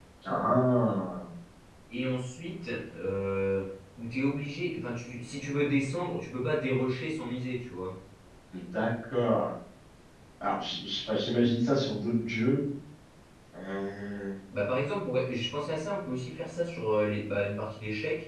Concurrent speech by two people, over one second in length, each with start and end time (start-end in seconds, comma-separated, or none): none